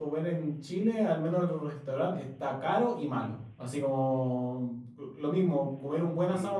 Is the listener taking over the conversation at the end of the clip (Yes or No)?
No